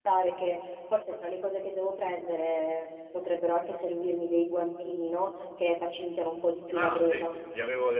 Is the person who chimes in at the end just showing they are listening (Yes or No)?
No